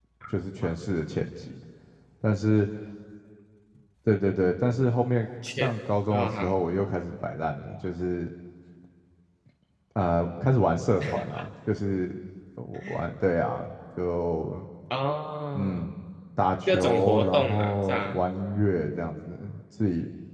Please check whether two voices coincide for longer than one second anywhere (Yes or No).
Yes